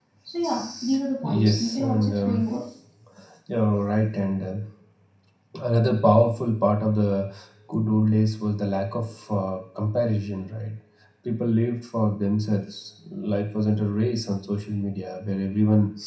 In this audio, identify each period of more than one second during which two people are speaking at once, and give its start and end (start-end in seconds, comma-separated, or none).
1.2-2.4